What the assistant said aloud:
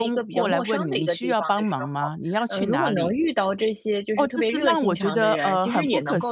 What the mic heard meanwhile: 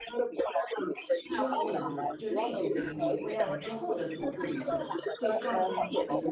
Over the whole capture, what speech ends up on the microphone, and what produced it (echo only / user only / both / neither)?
both